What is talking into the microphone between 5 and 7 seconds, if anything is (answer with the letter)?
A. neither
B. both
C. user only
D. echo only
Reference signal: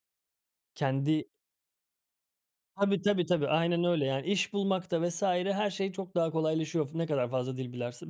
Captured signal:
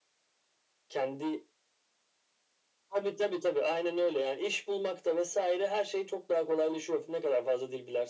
D